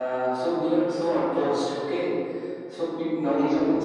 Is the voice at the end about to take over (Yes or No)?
No